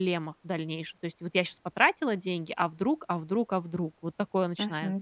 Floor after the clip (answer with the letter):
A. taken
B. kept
A